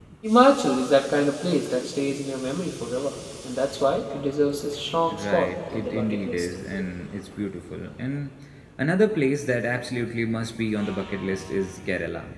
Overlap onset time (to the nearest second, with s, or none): 5 s